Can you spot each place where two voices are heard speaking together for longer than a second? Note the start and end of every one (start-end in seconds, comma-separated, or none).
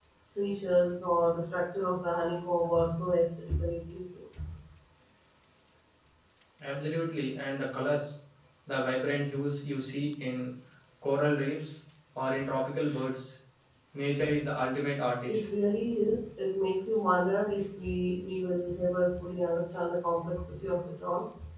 none